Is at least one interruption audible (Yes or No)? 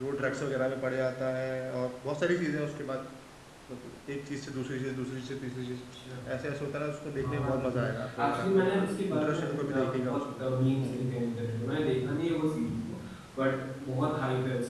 Yes